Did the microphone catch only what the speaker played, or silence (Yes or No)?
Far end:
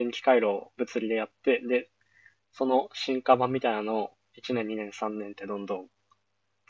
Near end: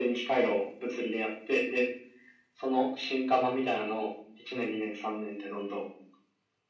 Yes